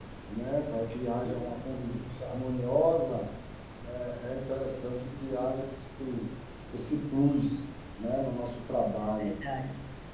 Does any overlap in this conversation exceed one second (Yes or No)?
No